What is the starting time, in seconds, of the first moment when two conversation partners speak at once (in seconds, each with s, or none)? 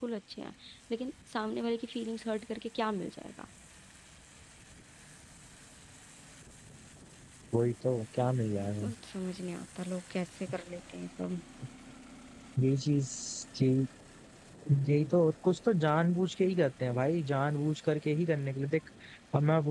none